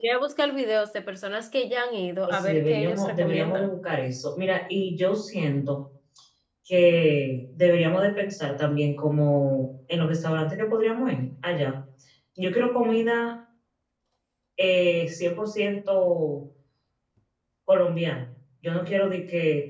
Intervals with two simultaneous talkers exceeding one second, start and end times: 2.2-3.7

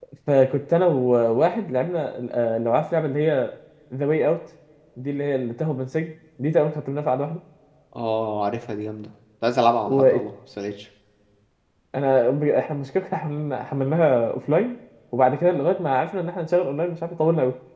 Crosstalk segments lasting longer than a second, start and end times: none

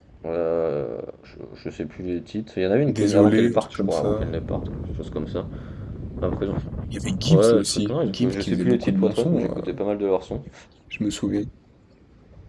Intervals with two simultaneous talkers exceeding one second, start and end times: 2.9-4.3, 7.3-9.8

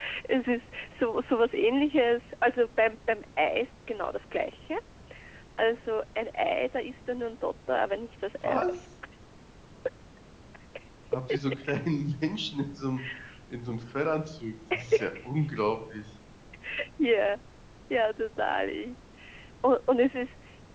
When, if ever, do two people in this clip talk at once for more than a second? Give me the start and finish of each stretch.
none

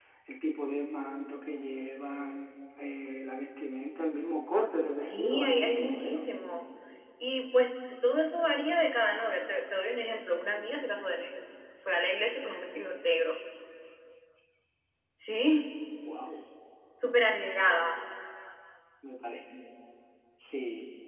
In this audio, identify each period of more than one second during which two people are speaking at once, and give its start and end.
5.0-6.3

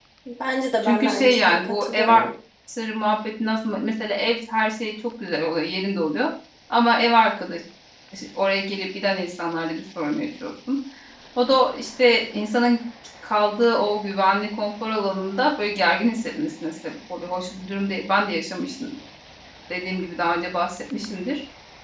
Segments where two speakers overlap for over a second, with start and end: 0.8-2.2

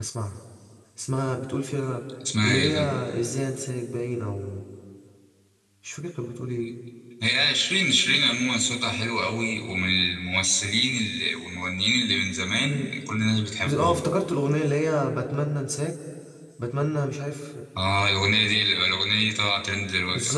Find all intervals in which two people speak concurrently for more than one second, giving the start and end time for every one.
none

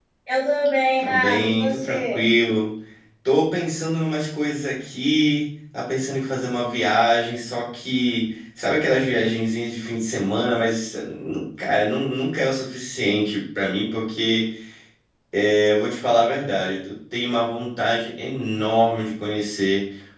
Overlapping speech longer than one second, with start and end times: 1.0-2.2

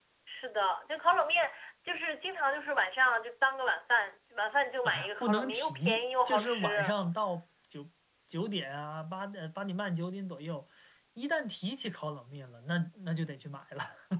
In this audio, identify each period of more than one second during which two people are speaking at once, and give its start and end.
4.8-7.0

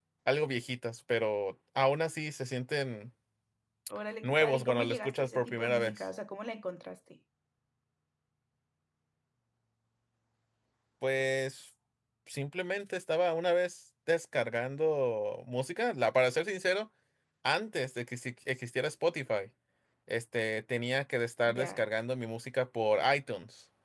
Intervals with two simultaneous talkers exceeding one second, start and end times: 4.2-6.0

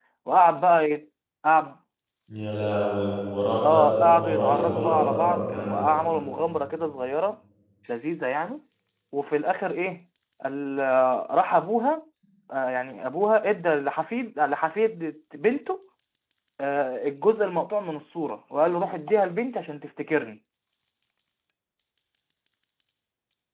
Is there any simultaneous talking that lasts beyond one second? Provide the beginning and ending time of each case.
3.6-5.9

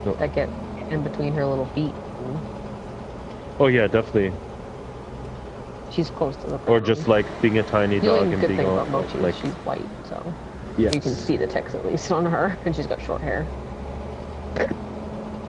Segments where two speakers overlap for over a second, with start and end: 8.0-9.3

